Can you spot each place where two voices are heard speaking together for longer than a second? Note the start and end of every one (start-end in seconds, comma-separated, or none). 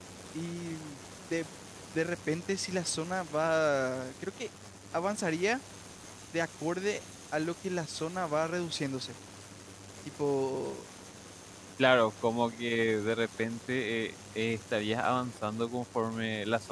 none